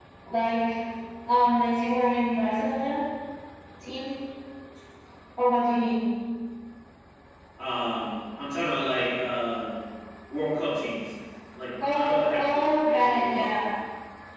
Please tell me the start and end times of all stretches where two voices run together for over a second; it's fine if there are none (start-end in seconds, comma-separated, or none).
11.8-13.6